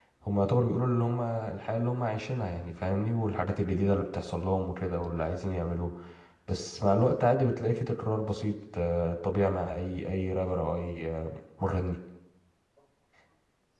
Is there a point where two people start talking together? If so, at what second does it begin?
none

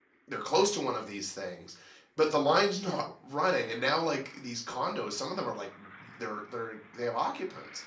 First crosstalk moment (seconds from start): none

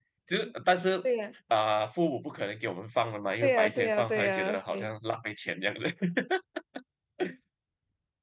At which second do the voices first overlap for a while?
3.4 s

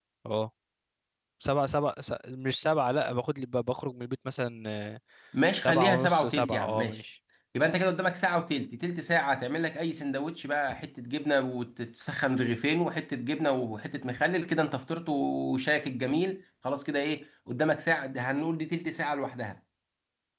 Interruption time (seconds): 5.6 s

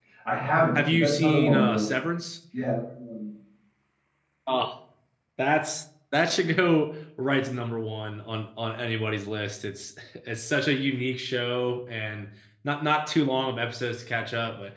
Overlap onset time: 0.8 s

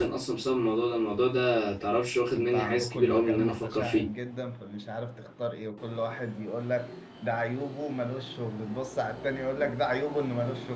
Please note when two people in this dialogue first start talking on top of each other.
2.3 s

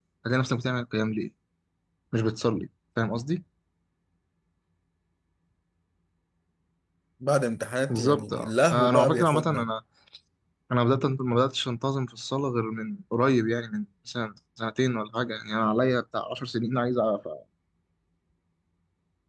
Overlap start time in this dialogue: 7.9 s

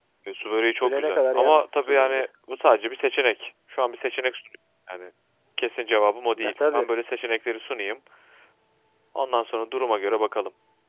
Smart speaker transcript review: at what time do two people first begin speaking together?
0.8 s

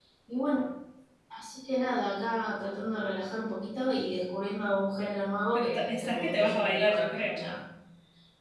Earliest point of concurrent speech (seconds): 5.5 s

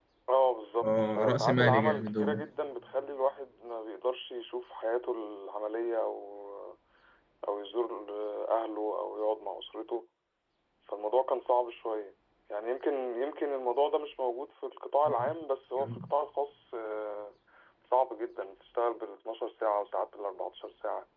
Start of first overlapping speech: 0.8 s

